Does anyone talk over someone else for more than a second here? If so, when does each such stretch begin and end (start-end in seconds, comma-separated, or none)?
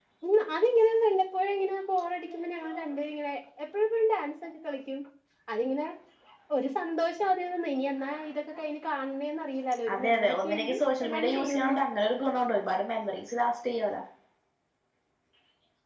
9.9-11.8